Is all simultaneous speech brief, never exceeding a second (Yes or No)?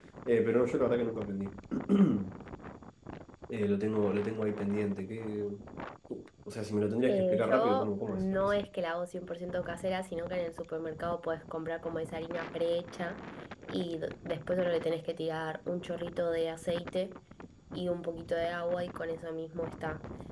No